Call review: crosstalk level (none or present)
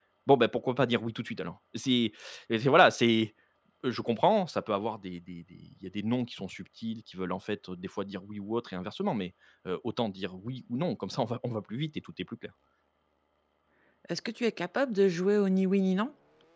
none